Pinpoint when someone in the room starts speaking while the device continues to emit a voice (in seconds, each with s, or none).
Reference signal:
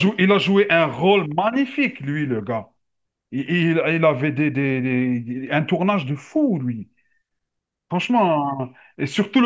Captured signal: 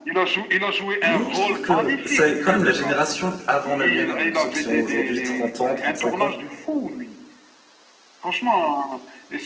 1.0 s